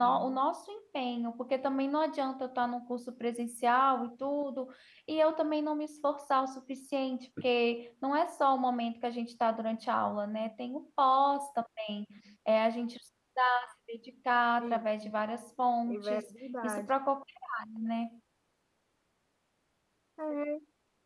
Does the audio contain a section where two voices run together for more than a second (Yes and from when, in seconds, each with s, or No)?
No